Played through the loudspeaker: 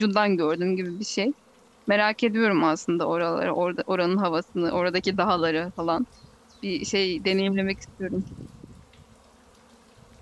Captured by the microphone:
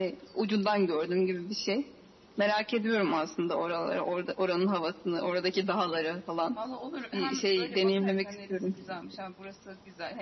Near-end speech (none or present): present